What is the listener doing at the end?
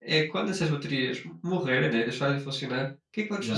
listening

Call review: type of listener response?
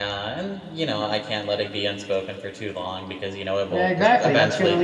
taking over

